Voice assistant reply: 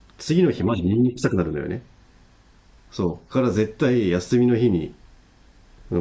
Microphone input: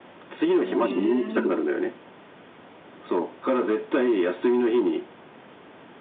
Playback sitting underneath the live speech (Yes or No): No